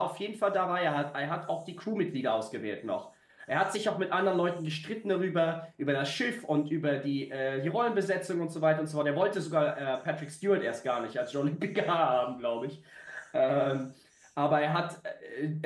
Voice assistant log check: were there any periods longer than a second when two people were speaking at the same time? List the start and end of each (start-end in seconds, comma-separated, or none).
none